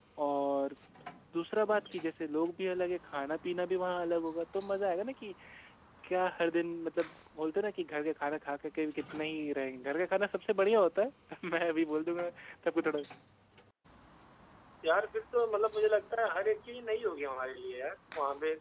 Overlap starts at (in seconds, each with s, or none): none